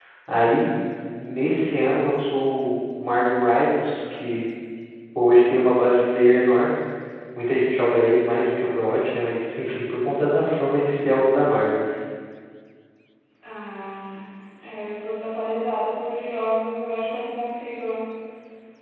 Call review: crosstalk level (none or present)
none